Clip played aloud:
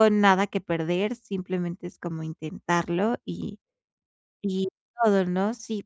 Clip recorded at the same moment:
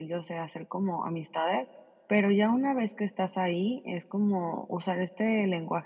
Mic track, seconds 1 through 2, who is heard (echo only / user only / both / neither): user only